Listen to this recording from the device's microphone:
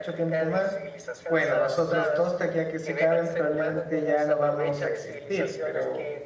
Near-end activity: present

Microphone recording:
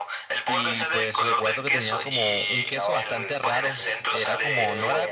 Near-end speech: present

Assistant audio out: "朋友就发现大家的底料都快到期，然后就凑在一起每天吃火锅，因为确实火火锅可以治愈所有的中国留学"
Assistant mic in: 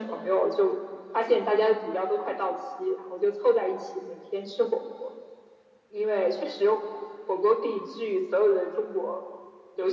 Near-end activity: none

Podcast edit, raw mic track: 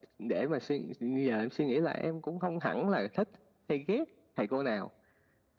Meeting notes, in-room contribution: none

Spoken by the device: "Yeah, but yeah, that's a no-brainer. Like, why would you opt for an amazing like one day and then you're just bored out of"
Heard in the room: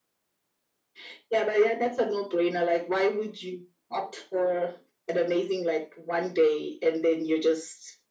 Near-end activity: none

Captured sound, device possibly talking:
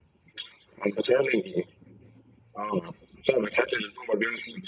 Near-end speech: none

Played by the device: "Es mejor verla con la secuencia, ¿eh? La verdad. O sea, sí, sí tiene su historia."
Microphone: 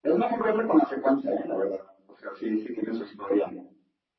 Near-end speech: none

